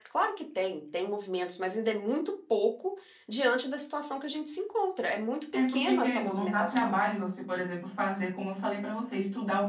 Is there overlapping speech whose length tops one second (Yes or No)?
Yes